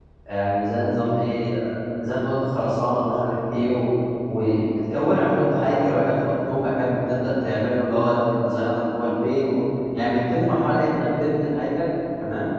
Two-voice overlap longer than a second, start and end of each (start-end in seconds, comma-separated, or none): none